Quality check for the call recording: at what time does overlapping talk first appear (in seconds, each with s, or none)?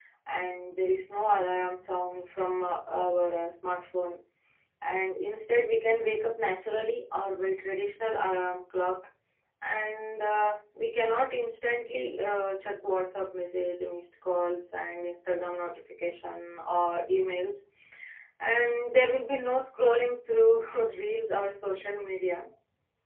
none